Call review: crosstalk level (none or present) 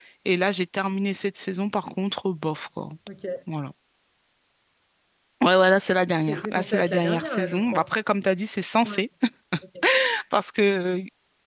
present